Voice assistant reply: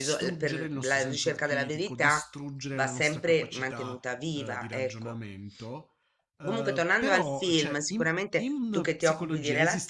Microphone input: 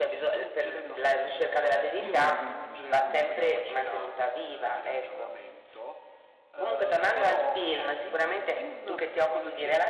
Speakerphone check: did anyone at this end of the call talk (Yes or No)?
Yes